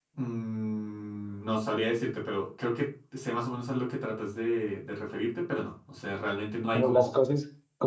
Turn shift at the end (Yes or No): Yes